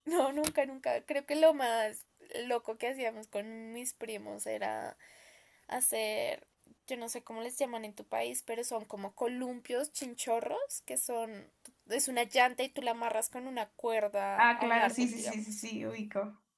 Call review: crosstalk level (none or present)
present